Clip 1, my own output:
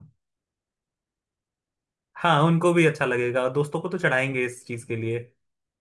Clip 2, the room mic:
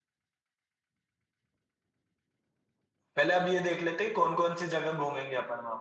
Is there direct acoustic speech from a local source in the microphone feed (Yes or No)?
Yes